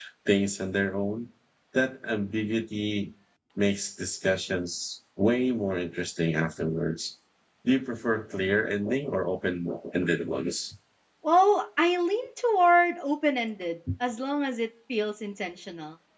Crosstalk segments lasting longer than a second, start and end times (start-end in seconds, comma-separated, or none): none